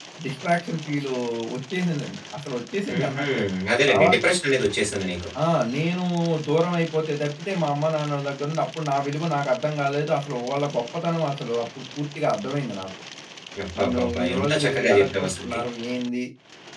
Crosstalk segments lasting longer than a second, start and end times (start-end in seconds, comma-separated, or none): 13.8-15.6